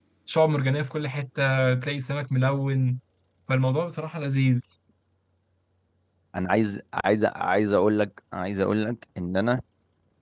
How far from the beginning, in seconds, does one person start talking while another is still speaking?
none

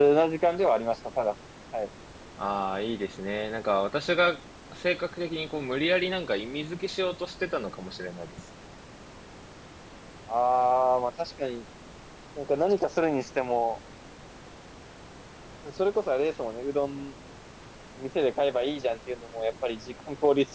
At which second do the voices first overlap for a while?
none

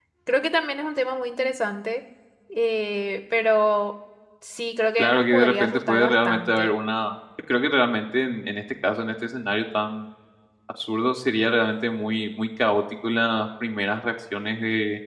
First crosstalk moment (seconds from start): 5.0 s

